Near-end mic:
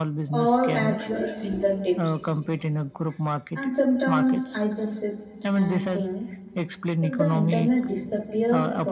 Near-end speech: present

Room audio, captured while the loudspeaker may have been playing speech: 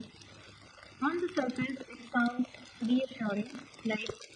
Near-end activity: none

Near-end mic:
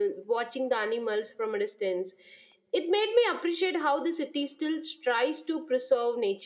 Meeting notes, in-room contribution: none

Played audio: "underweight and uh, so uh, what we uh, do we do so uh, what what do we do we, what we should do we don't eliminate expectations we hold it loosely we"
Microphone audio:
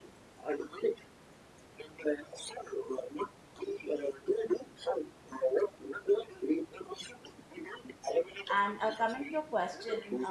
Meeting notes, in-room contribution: present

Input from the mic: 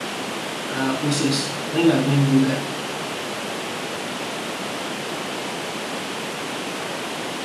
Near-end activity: present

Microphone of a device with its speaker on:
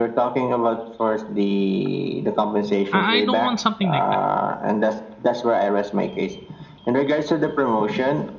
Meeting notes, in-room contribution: present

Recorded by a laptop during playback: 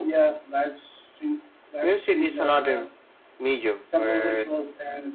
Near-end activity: none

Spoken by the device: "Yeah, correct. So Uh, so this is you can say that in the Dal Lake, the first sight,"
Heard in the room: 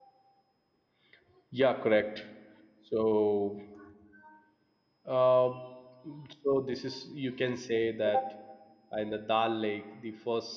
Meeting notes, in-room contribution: none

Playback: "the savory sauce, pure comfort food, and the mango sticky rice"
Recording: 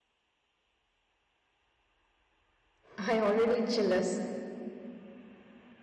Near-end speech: present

